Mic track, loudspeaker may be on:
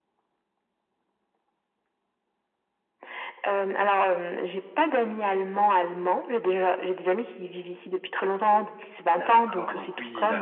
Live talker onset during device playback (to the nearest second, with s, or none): 9 s